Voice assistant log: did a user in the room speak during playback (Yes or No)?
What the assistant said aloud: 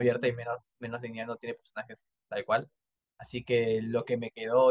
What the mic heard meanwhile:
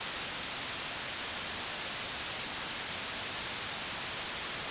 No